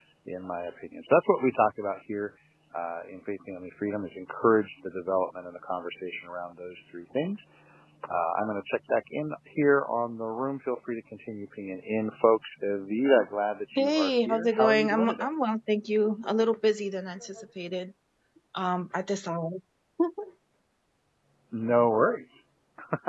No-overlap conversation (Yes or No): No